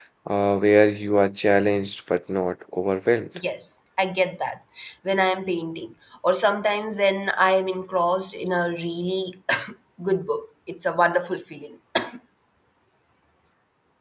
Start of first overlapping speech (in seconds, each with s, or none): none